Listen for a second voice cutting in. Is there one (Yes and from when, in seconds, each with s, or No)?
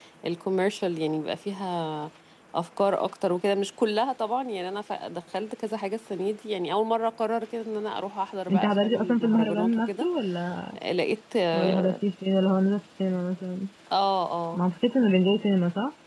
Yes, from 8.5 s